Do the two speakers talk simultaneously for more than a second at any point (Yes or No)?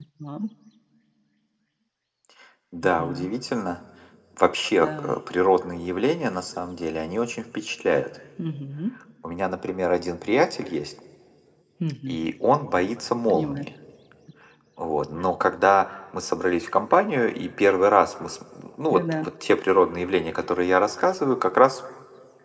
No